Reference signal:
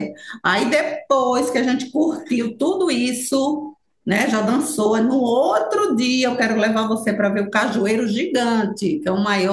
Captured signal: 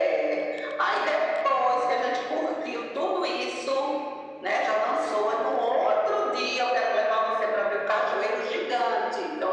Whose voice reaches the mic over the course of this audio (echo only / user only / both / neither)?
echo only